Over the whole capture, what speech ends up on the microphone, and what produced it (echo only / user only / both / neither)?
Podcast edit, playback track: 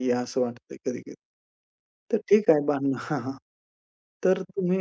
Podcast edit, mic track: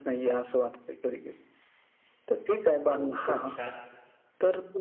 both